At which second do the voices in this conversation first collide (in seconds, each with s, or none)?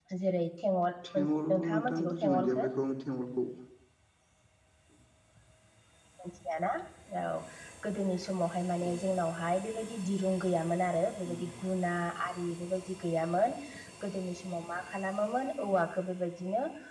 1.1 s